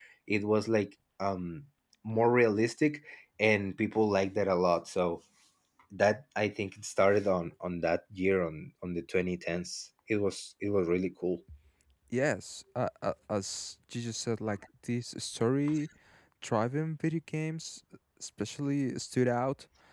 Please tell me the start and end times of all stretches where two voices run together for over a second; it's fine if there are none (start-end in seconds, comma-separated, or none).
none